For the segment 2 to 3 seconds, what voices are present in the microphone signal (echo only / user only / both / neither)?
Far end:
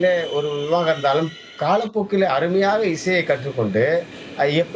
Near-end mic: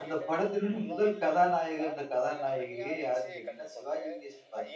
both